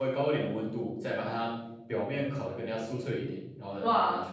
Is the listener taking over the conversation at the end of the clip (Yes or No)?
Yes